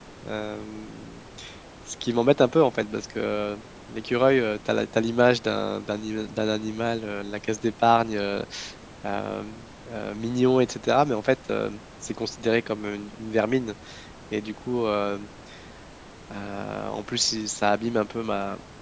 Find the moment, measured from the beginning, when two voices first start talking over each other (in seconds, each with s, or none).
none